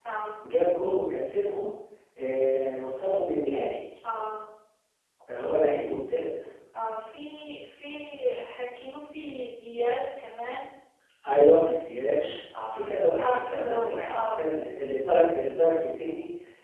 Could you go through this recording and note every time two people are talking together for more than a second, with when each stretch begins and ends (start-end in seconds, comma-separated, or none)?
13.2-14.4